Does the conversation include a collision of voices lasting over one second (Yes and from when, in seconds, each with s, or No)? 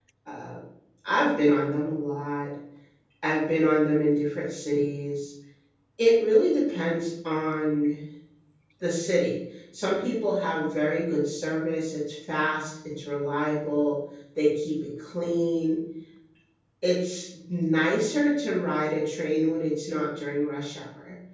No